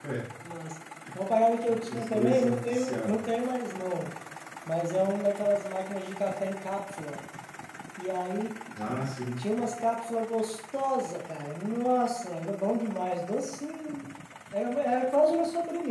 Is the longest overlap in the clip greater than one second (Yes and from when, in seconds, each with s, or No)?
Yes, from 1.9 s